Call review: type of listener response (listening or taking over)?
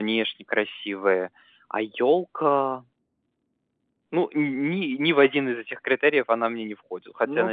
taking over